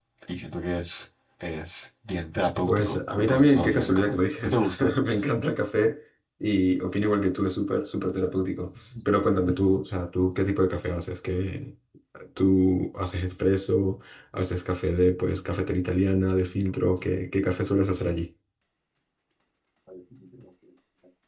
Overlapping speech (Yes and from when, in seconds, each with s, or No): Yes, from 2.7 s